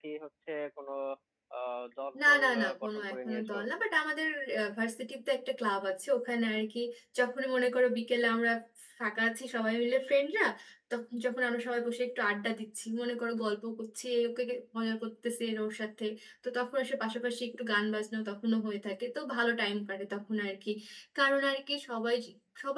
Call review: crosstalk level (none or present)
present